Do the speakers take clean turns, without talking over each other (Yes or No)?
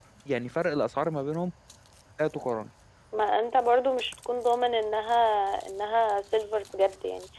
Yes